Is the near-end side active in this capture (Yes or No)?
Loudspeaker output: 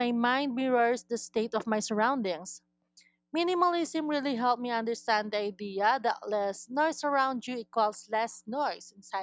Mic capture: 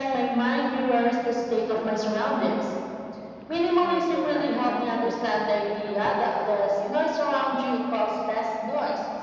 Yes